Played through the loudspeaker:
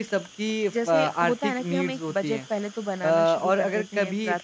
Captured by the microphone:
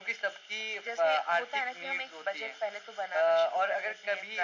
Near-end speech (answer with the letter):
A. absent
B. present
A